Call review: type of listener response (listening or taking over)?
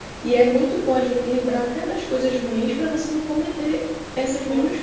taking over